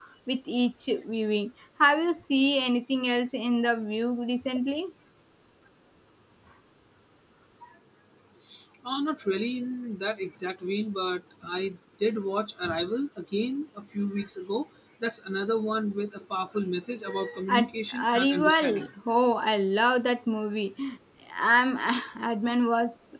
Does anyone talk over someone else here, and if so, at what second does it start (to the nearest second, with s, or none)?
17 s